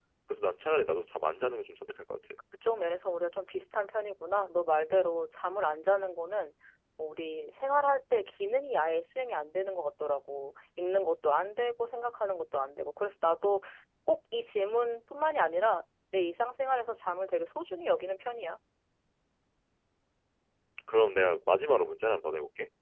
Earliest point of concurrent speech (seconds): none

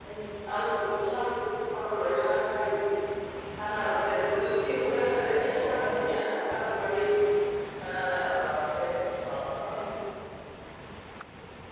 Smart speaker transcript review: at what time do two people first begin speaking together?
5.3 s

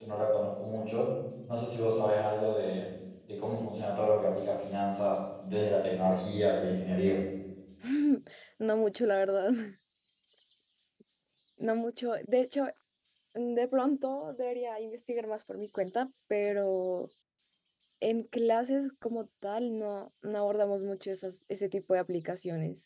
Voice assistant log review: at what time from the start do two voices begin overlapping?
none

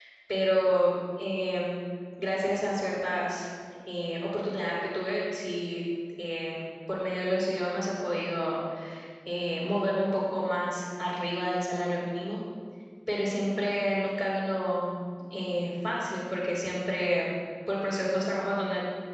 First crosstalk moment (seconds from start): none

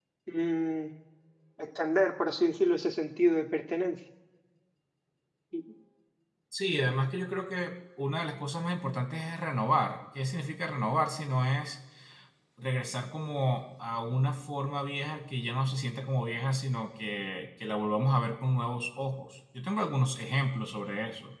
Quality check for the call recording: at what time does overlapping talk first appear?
none

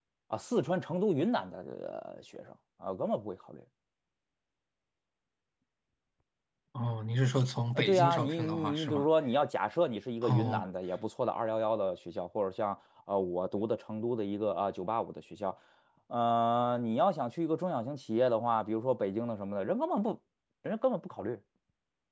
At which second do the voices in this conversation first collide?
7.8 s

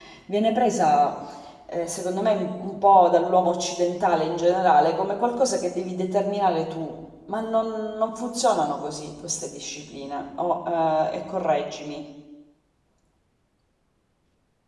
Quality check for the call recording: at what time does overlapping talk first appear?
none

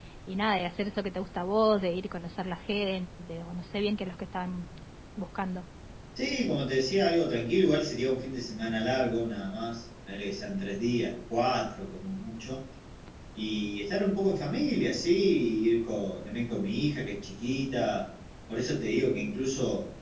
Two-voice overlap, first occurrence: none

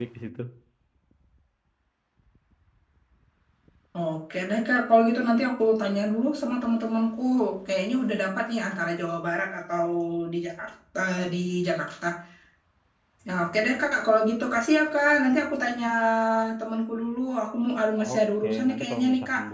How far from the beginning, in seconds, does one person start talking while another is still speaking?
18.0 s

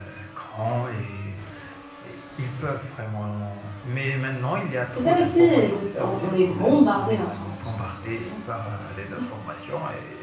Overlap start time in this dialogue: 5.0 s

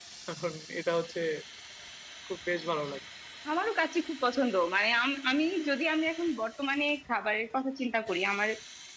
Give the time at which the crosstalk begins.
none

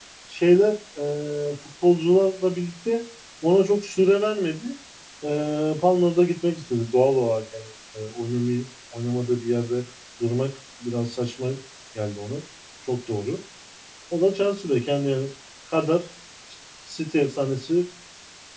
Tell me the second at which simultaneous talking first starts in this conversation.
none

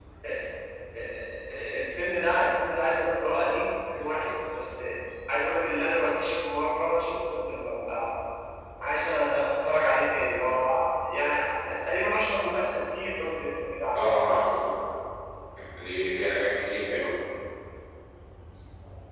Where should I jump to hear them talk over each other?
none

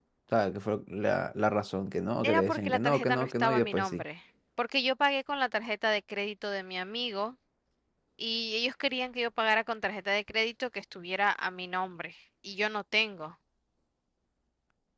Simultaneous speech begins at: 2.2 s

